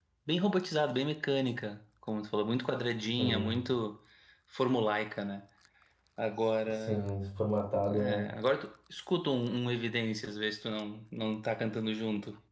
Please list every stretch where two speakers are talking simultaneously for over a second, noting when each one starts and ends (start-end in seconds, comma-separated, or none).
none